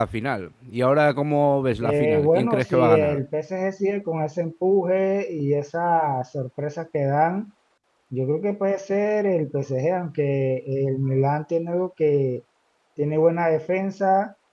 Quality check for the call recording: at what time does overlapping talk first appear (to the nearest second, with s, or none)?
2 s